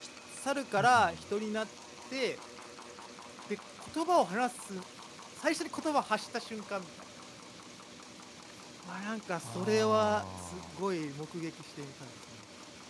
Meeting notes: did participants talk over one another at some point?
Yes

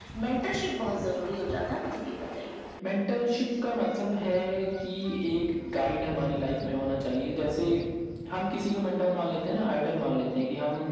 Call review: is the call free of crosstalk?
Yes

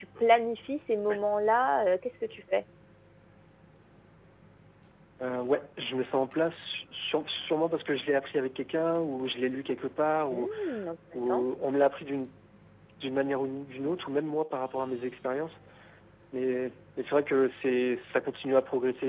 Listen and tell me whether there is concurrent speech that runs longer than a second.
No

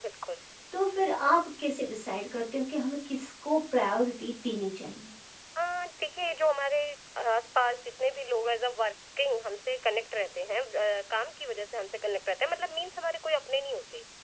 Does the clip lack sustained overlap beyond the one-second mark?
Yes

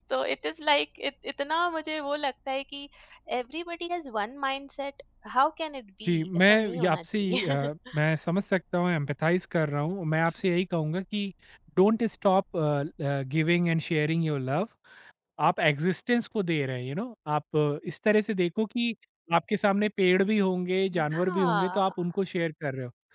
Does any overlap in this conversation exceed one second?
Yes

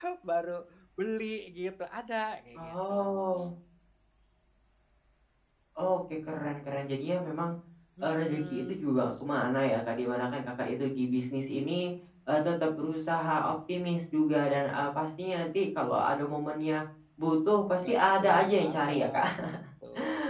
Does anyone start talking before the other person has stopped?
Yes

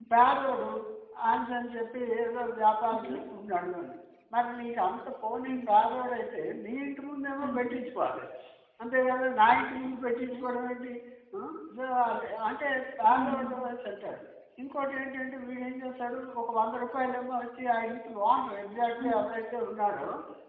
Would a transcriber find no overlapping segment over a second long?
Yes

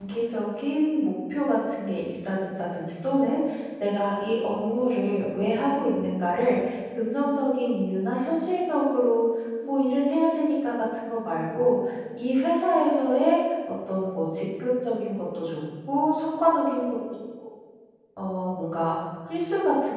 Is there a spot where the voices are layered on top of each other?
No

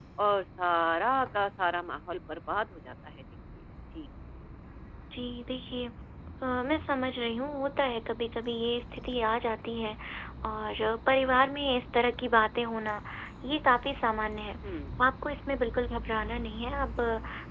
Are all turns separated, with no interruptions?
Yes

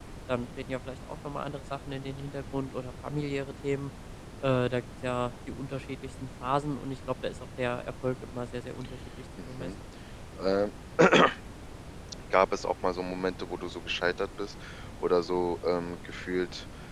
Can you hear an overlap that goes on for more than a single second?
No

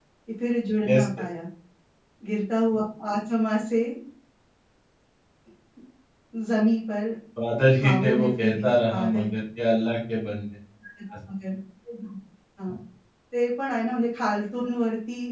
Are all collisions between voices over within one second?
No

